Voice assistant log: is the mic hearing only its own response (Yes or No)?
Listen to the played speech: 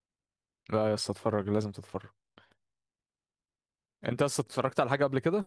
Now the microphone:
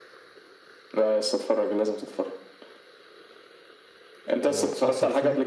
No